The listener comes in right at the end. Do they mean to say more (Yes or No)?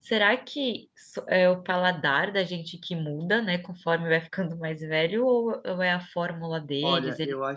Yes